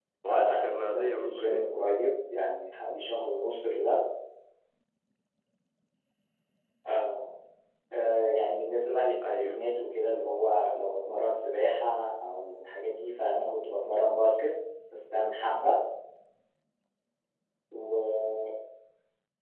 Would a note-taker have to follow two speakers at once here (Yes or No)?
Yes